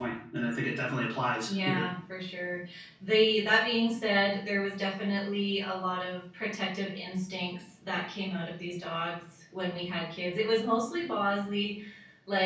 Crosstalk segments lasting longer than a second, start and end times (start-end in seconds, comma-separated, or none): none